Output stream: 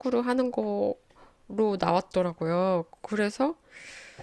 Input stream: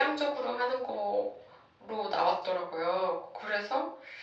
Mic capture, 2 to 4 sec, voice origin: echo only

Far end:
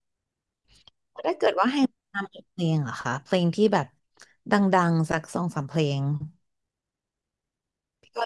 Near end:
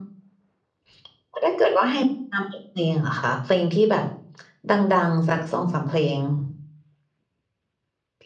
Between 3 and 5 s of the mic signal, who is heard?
echo only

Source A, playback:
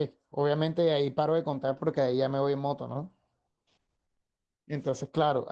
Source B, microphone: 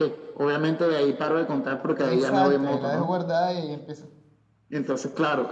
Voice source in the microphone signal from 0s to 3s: both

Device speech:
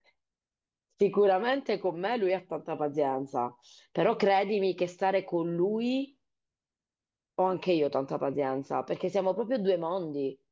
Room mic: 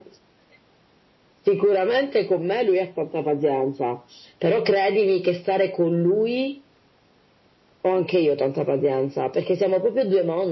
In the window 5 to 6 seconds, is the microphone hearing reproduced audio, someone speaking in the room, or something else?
echo only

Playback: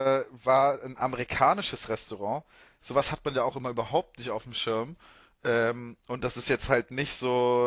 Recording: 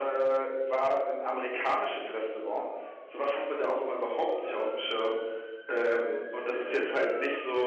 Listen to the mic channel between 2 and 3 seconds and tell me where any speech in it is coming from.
echo only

